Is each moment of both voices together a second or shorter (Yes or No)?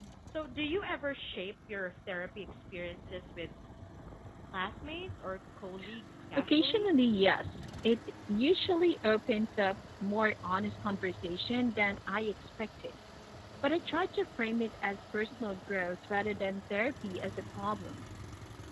Yes